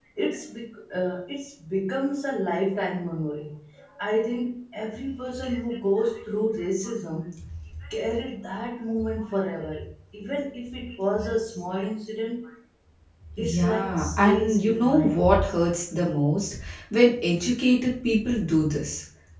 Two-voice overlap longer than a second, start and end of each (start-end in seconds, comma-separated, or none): 13.6-15.2